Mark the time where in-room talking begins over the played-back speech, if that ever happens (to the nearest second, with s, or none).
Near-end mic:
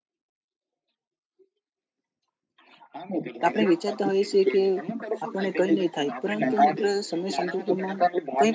3 s